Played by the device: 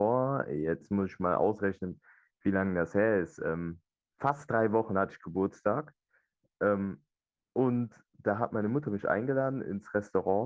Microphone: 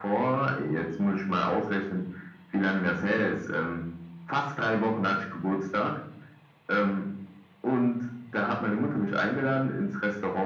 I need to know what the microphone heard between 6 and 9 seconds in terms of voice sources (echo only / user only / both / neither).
echo only